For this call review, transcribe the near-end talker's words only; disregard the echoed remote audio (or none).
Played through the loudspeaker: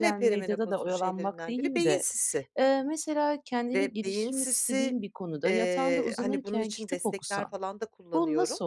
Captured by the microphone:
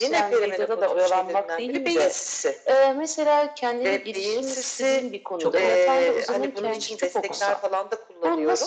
Çok oldu. Hımm. Tamam.